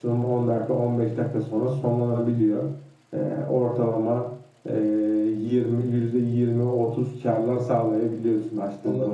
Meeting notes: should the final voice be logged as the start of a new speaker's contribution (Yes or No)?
Yes